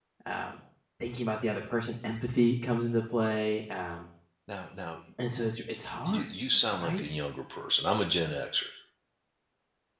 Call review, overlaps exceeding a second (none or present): none